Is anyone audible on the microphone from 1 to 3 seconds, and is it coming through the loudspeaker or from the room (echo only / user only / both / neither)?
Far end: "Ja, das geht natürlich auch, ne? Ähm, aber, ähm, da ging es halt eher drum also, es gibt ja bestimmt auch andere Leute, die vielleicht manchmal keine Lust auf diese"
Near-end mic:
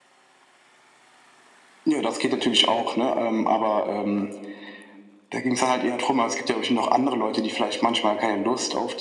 echo only